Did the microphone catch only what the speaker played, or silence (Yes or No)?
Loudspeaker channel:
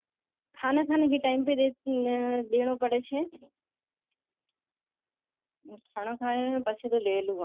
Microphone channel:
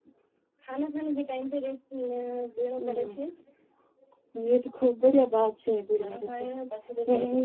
No